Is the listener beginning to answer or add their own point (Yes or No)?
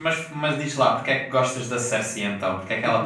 Yes